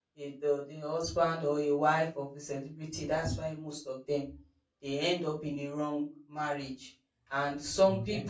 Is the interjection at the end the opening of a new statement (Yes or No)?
No